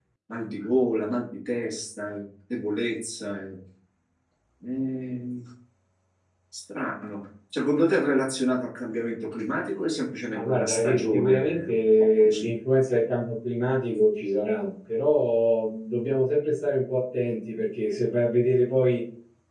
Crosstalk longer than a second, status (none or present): present